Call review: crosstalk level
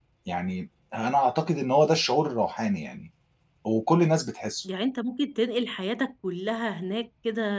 none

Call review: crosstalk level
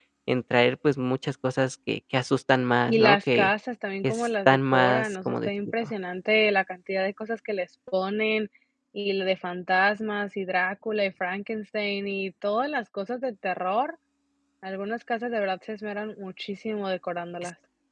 present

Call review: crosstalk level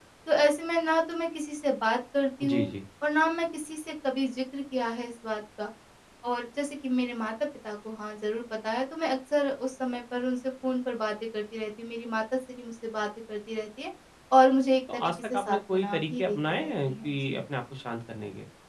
present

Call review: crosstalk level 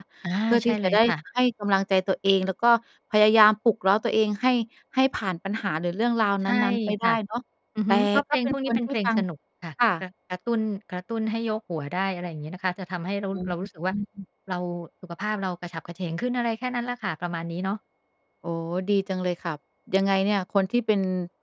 present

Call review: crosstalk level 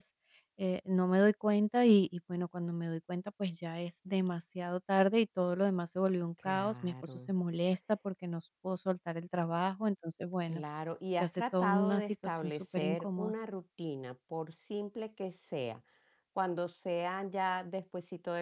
present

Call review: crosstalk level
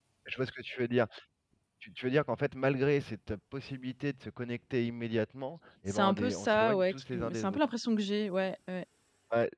present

